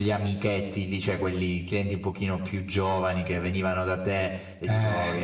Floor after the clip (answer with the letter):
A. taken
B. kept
B